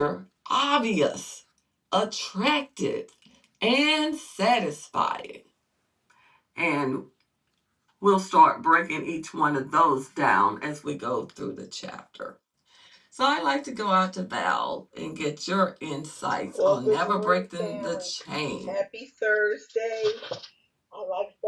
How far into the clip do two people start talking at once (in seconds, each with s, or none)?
16.5 s